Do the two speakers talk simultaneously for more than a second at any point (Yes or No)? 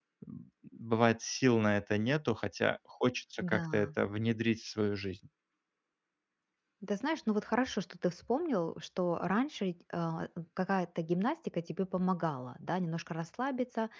No